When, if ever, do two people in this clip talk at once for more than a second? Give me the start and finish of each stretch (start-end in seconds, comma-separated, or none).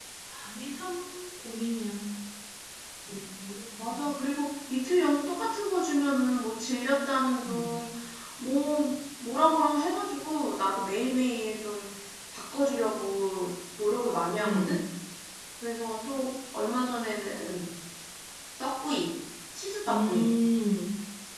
none